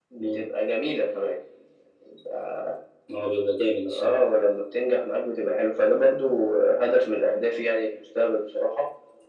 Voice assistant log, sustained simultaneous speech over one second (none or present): none